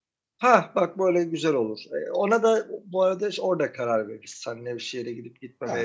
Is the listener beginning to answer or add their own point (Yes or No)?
No